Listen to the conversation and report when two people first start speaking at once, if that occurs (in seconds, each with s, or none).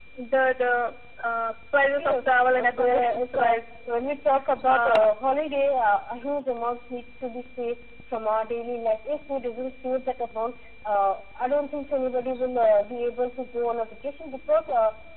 2.0 s